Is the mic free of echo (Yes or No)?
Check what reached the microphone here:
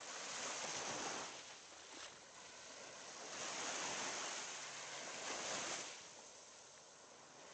Yes